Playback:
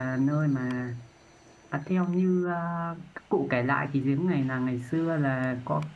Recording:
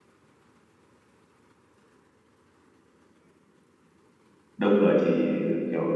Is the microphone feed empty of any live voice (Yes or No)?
No